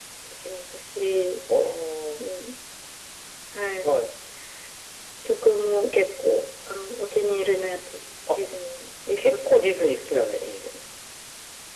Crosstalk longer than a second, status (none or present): present